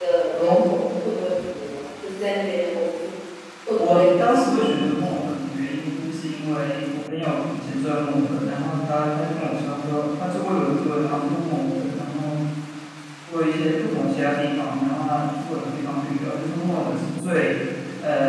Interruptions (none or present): present